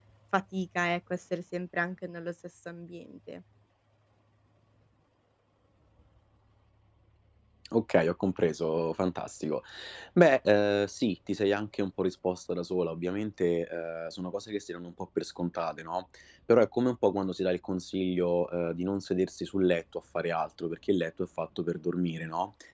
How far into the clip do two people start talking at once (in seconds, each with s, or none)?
none